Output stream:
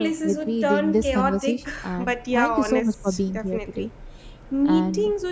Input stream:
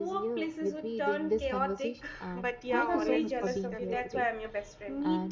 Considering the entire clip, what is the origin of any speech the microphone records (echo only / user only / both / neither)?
both